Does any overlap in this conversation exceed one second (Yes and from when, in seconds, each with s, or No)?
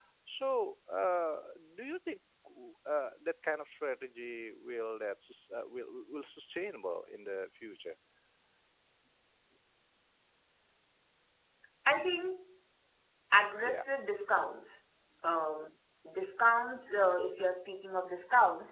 No